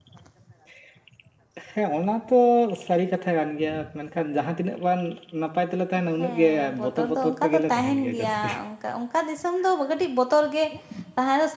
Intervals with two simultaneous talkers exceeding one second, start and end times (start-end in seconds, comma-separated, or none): 6.5-8.5